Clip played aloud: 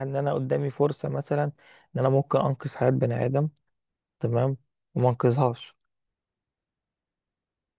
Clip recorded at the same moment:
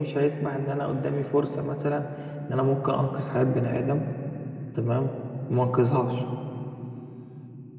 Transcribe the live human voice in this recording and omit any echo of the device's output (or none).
none